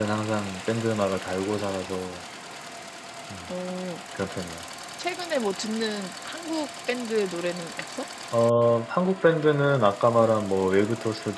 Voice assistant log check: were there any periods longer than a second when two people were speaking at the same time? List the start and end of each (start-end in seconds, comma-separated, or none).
none